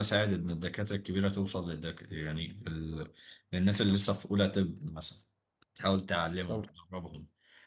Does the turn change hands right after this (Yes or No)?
No